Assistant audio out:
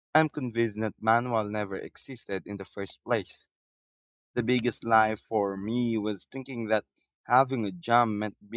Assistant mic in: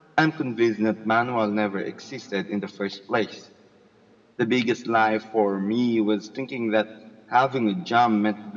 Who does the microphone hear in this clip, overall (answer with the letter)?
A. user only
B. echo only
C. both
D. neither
B